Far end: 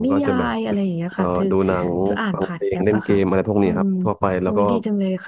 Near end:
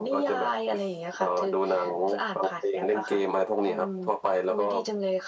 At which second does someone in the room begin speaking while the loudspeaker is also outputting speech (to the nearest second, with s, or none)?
none